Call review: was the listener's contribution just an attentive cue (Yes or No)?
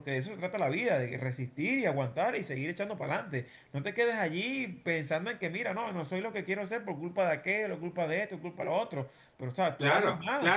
No